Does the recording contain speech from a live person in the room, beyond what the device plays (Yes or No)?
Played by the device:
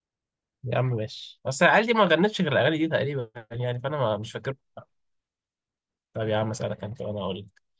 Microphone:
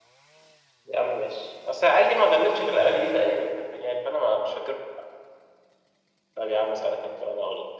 No